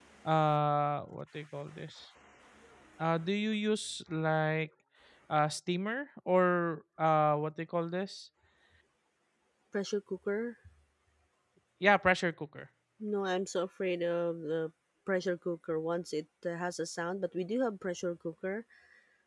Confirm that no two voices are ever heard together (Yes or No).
Yes